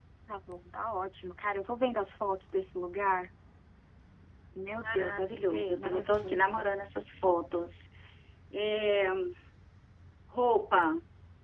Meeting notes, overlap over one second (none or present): present